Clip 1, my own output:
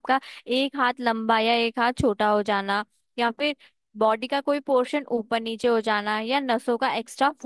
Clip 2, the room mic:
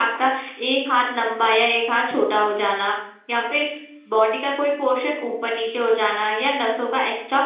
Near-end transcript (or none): none